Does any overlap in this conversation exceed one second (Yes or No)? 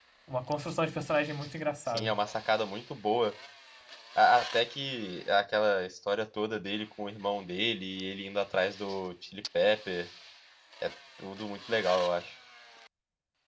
No